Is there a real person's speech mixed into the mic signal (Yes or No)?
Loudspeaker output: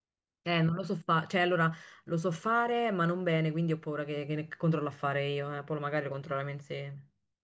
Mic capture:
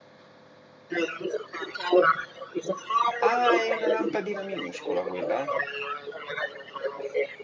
Yes